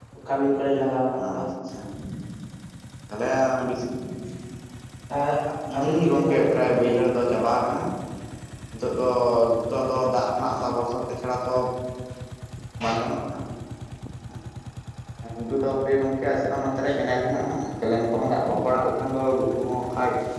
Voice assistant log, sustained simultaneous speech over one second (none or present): present